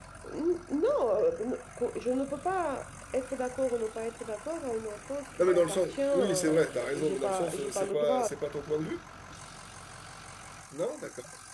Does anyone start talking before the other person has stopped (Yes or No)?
Yes